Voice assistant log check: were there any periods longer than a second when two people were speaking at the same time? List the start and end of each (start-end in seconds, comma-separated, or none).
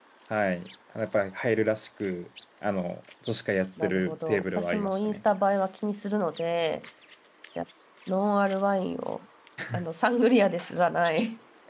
3.8-5.2